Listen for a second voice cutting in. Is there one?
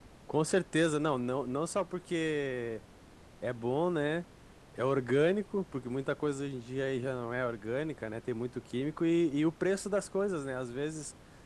No

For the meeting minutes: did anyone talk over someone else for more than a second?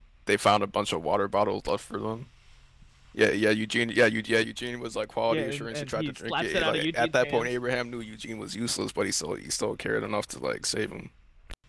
Yes, from 5.3 s

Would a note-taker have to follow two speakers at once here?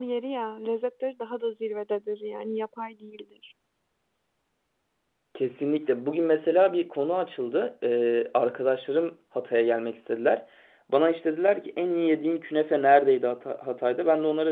No

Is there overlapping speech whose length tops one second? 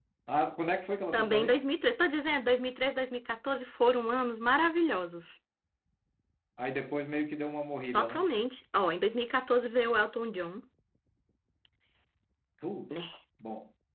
No

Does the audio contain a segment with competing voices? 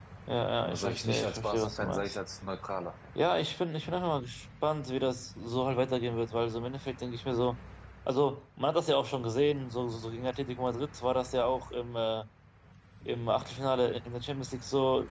Yes, from 0.6 s

